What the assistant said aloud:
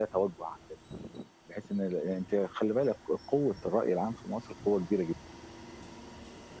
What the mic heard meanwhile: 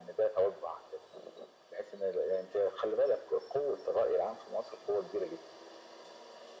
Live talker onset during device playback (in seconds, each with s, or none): none